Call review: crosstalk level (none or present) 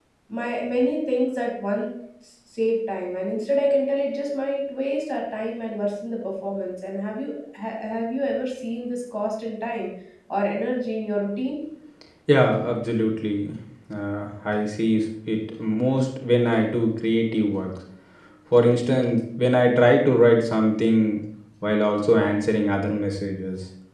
none